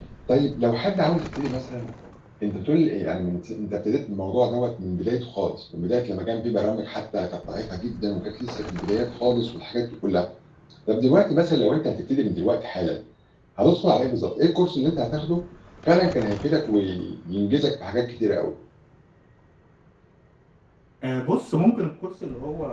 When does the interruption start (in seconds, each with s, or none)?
none